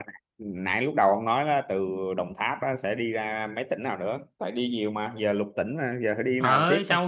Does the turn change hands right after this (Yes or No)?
Yes